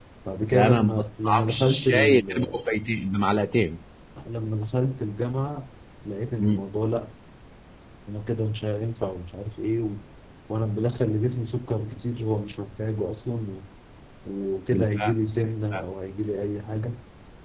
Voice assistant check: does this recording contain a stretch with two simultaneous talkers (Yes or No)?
Yes